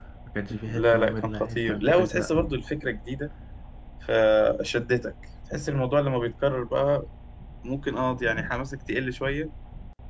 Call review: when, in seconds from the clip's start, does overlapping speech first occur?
0.7 s

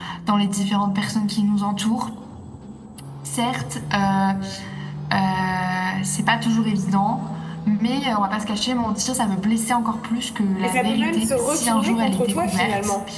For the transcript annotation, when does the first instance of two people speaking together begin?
10.6 s

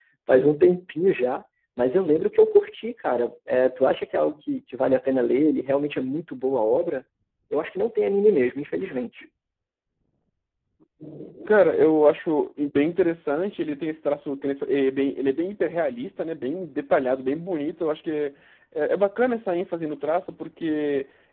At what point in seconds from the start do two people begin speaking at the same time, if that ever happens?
none

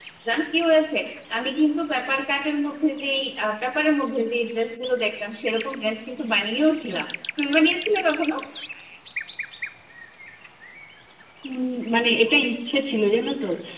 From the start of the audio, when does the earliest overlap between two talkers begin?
none

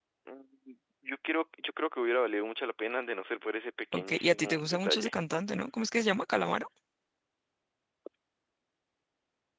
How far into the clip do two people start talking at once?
3.9 s

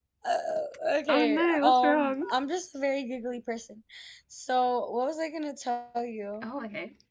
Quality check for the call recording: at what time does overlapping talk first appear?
1.1 s

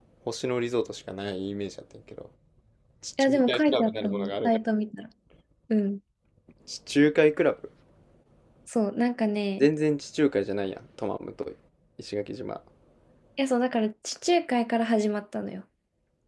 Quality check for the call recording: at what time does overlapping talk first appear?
3.2 s

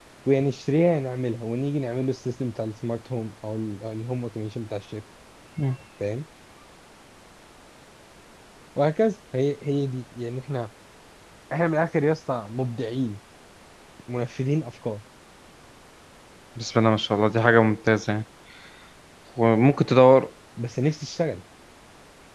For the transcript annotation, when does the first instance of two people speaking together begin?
none

